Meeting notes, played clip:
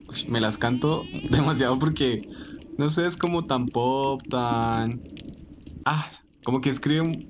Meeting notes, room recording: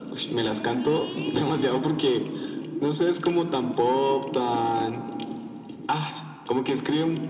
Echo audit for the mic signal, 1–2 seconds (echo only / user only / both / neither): echo only